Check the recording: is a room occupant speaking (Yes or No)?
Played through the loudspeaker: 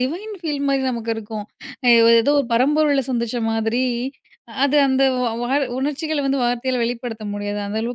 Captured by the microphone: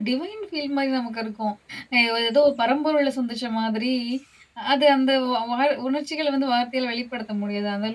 No